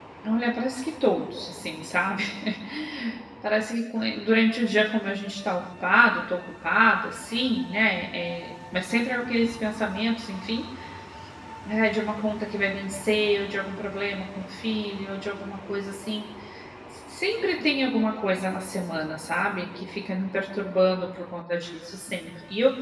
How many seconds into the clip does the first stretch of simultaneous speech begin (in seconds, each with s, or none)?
none